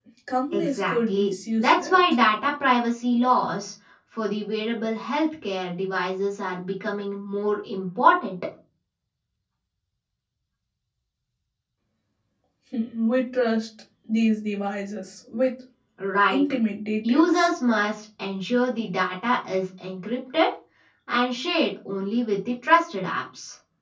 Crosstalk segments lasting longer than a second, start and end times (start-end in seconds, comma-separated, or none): 0.5-2.0